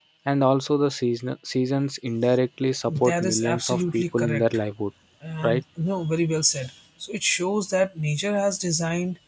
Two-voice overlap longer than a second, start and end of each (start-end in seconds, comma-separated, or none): 2.9-4.4